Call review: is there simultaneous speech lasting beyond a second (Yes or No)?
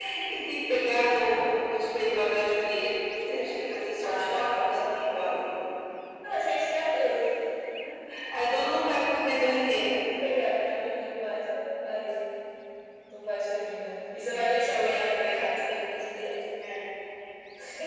Yes